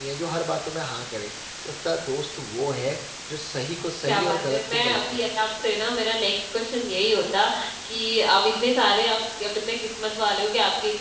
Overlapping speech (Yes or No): Yes